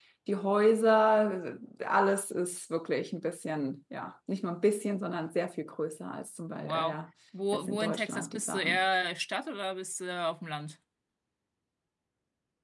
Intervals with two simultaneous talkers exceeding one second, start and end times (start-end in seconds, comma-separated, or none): 7.5-8.8